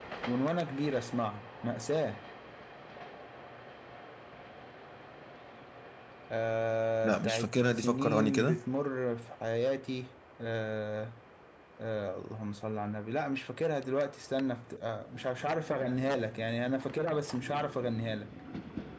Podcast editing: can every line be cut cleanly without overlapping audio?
No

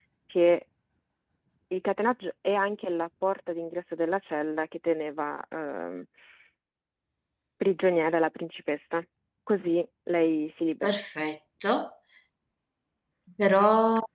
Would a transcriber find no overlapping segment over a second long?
Yes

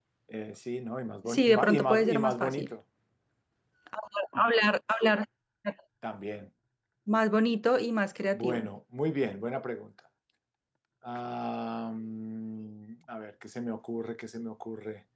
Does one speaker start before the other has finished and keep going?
Yes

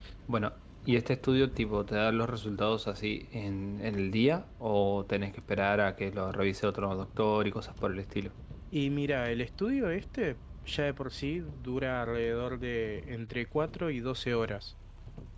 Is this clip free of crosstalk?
Yes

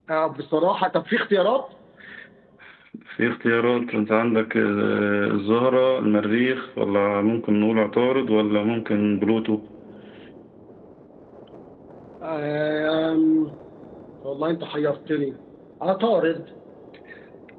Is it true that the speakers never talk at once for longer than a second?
Yes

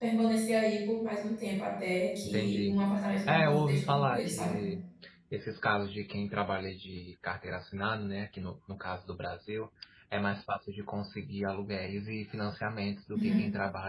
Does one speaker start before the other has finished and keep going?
Yes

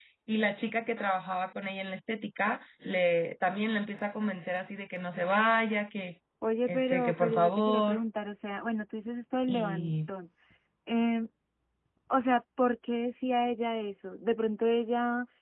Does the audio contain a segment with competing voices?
Yes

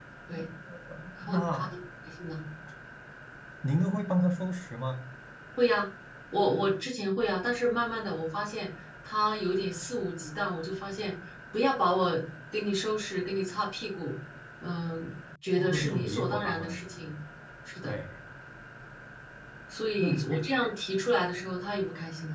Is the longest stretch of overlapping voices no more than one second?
No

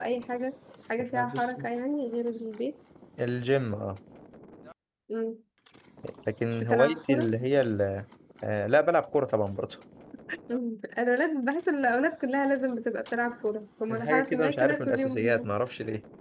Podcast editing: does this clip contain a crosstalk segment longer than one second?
Yes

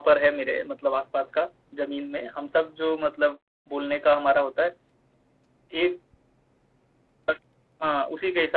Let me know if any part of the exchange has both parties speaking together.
No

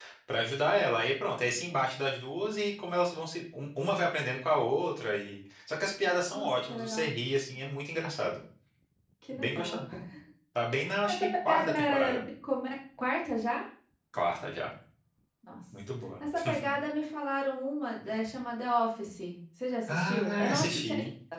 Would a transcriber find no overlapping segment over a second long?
No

